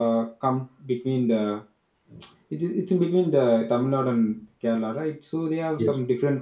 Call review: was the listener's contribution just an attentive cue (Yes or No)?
Yes